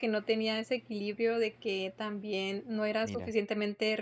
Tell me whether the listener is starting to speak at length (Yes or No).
No